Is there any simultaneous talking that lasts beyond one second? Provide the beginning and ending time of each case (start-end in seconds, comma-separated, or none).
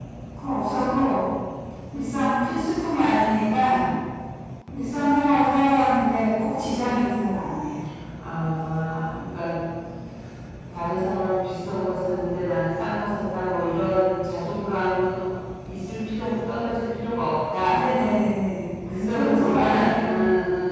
18.9-20.2